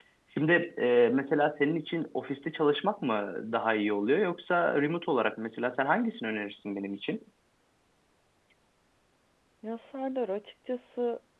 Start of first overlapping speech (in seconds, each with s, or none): none